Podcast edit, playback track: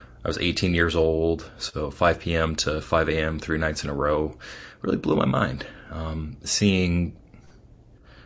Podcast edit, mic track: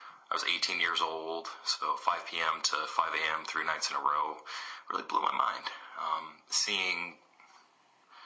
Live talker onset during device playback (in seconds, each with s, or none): none